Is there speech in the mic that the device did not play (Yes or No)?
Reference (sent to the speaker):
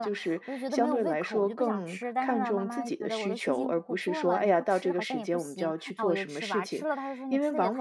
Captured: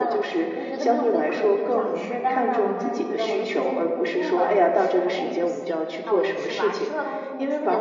Yes